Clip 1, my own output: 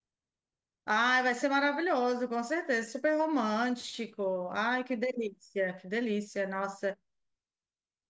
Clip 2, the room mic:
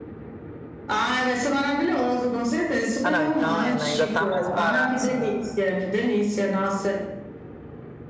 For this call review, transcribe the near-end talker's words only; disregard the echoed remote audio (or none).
Ah, não, então ainda, ainda tá mais barato, sim.